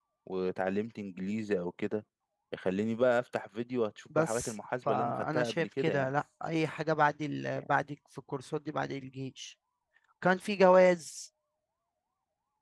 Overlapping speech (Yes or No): Yes